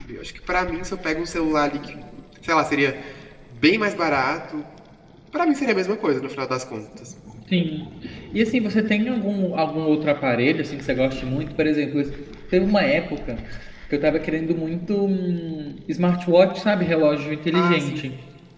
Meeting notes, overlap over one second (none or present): none